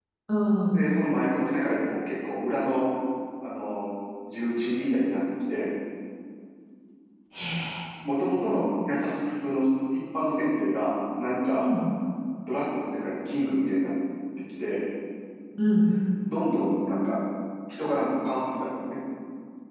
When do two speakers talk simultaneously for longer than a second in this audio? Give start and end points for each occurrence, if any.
none

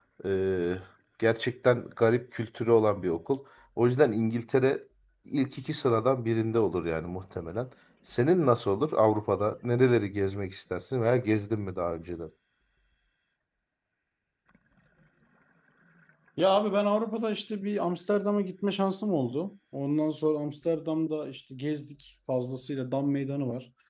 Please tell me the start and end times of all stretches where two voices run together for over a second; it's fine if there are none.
none

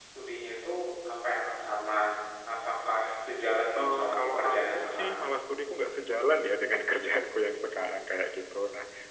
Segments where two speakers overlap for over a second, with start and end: 3.8-5.2

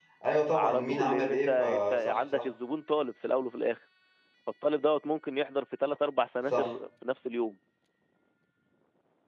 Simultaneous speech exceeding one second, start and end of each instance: 0.5-2.4

